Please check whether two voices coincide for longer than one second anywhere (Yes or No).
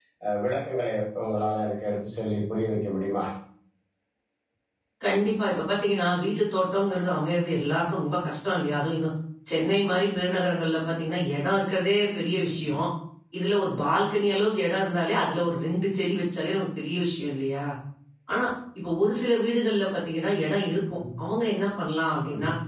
No